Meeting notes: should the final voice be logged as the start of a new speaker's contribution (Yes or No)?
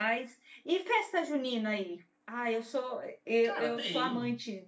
No